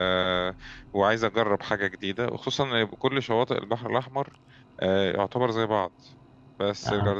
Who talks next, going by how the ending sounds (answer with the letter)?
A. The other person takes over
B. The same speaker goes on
B